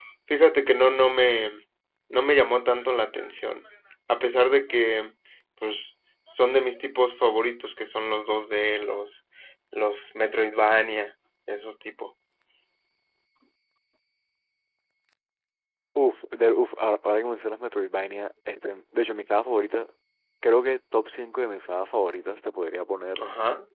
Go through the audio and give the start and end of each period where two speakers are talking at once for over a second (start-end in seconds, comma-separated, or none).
none